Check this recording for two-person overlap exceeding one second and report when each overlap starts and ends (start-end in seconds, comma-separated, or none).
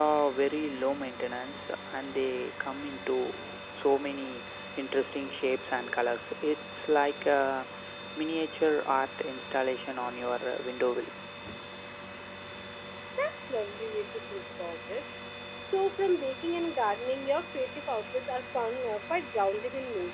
none